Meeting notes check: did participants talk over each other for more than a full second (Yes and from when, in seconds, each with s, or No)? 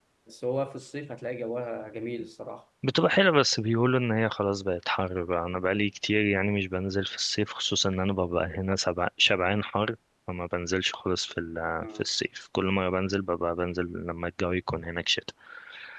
No